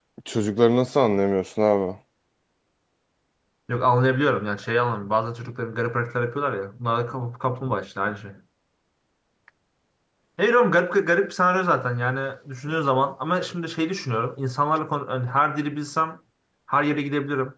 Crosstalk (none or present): none